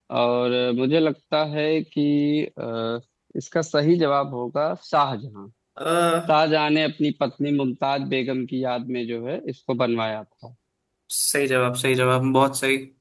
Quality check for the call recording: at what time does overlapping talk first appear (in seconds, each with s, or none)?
none